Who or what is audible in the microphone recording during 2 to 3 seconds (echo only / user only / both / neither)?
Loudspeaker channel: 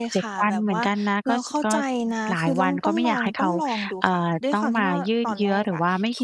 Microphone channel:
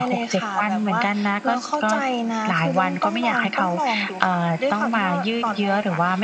echo only